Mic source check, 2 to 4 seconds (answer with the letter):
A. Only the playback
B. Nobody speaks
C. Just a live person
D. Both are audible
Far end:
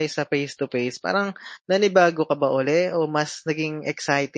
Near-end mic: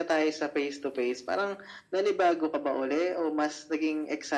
A